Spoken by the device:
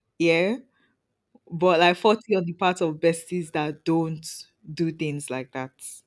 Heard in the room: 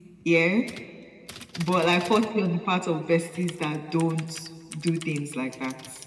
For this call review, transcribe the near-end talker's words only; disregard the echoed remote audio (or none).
none